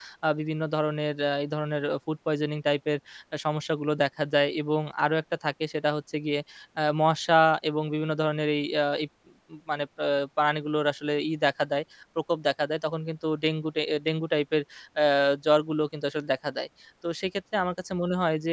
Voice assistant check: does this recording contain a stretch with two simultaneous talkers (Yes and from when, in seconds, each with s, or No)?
No